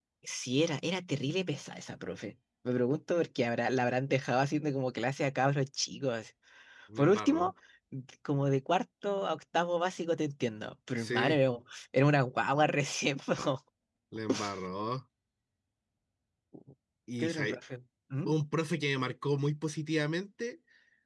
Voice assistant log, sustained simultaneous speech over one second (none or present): none